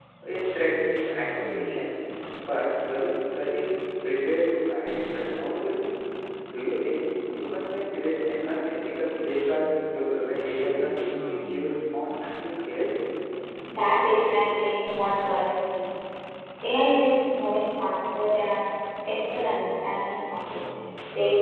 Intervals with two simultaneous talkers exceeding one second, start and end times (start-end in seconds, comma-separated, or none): none